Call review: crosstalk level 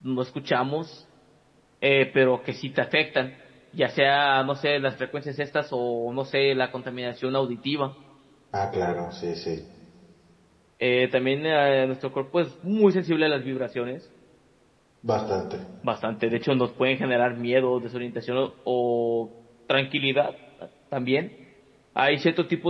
none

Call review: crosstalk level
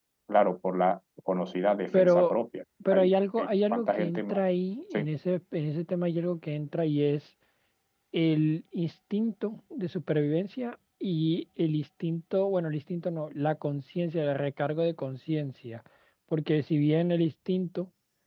present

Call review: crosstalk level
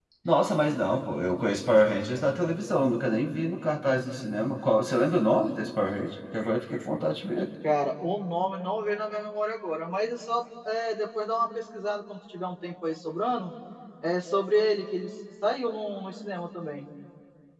none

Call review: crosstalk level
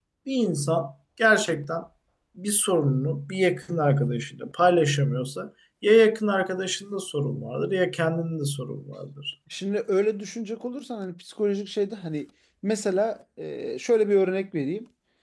none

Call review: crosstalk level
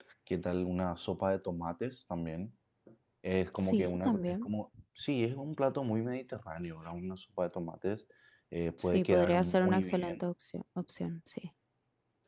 present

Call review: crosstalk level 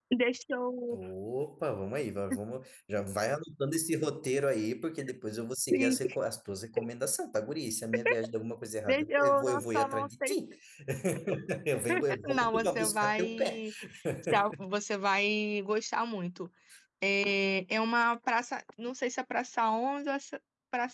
present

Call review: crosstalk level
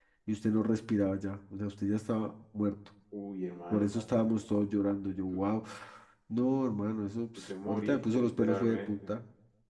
present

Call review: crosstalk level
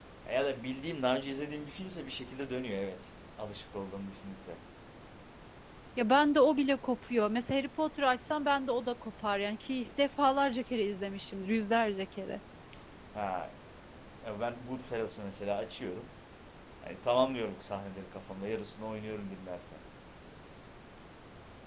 none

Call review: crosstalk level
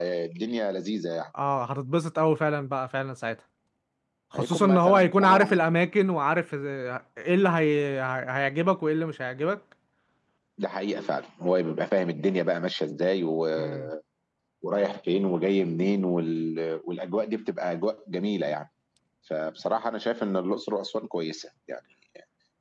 present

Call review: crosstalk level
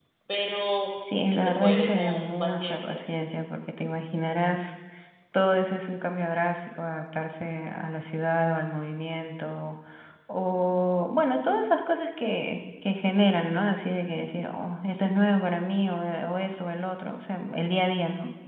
present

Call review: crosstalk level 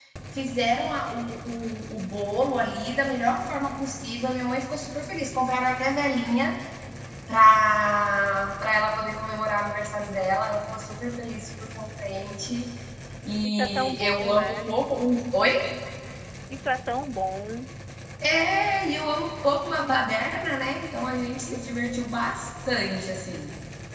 present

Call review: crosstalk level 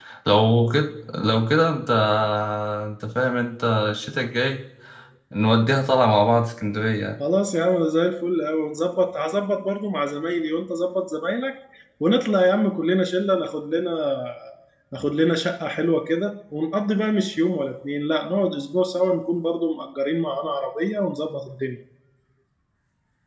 none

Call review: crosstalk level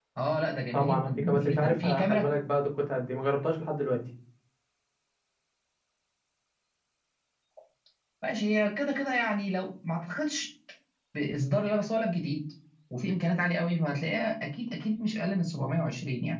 present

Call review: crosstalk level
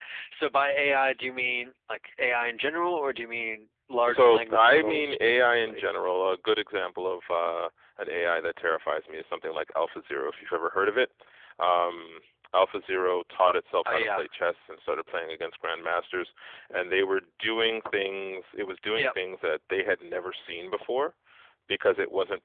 present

